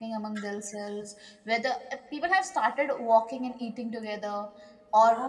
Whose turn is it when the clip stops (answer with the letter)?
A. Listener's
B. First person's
B